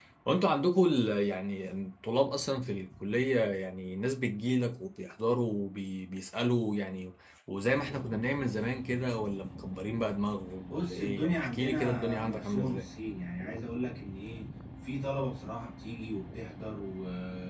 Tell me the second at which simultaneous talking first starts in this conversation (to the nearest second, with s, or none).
11 s